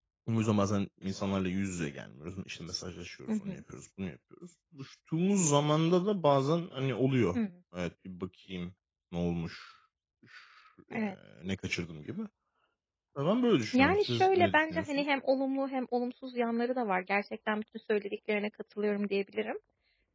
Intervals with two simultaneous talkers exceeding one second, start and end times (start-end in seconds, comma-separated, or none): 13.7-15.0